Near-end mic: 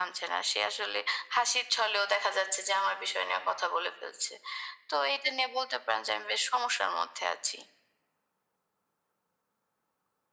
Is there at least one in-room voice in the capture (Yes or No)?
No